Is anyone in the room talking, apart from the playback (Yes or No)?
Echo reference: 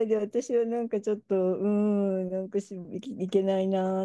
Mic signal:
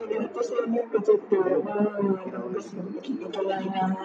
Yes